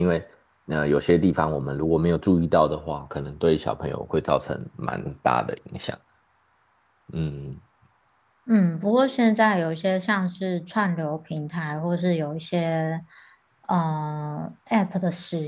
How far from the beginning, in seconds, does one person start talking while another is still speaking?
none

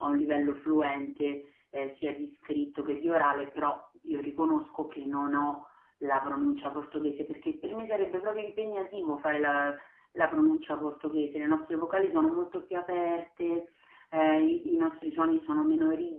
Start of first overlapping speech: none

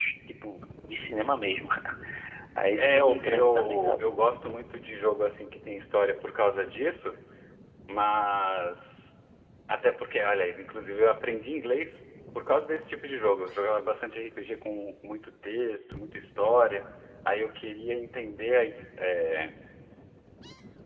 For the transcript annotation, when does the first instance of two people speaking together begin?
3 s

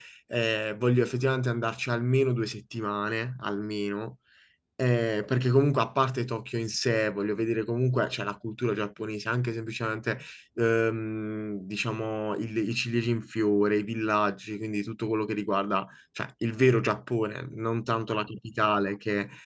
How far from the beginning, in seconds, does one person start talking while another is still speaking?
none

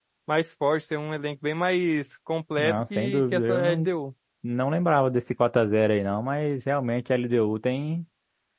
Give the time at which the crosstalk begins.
3 s

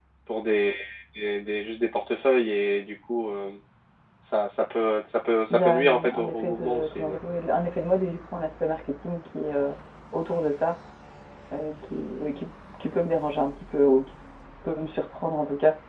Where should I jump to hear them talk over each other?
6 s

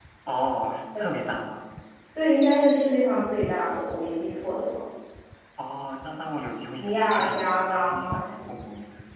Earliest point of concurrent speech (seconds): 7 s

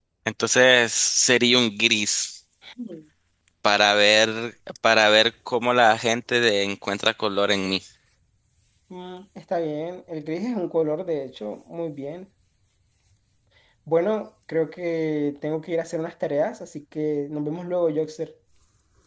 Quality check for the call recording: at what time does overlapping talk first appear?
none

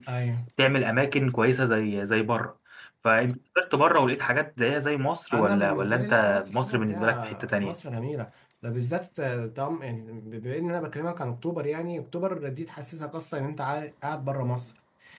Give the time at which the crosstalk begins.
5 s

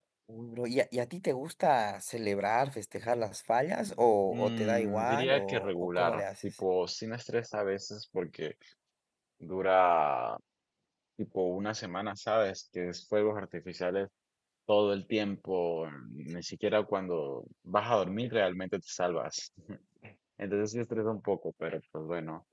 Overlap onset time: 4 s

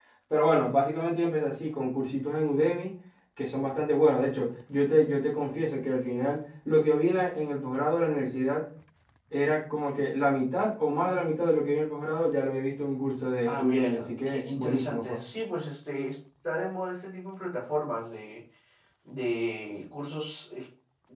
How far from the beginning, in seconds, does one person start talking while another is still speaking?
13 s

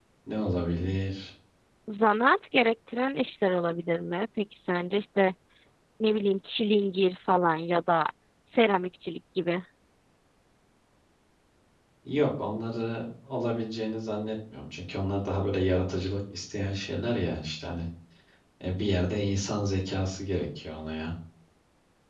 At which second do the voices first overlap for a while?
none

